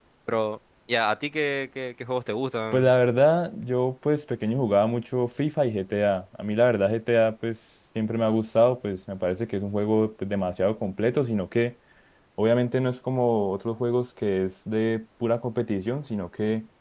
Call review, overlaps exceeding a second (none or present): none